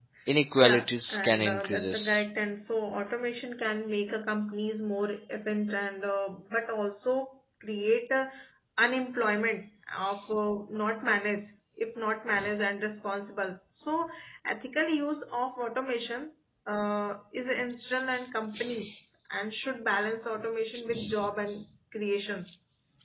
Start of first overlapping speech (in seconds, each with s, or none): 0.6 s